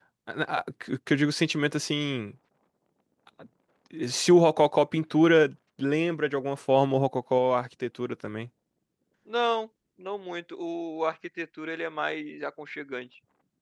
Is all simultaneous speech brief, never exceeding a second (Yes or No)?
Yes